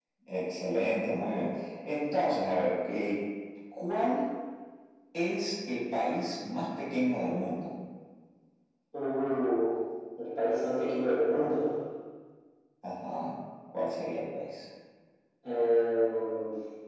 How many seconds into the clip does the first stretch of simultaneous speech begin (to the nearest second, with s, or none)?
none